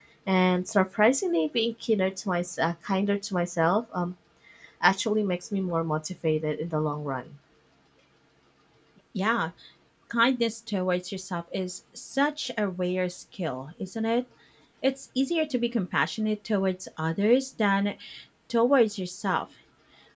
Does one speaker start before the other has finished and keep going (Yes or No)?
No